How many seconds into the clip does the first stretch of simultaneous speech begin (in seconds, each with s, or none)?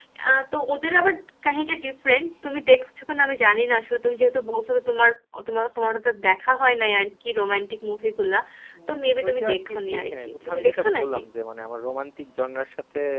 8.9 s